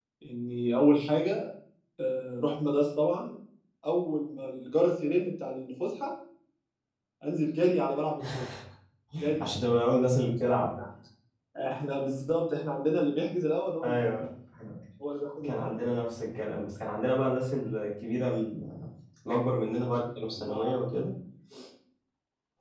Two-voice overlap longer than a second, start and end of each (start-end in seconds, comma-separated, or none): none